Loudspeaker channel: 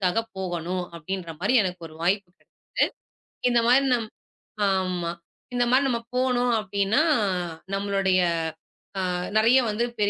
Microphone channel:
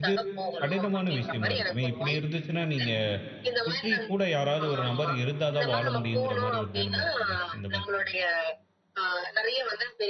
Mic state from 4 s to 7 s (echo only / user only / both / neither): both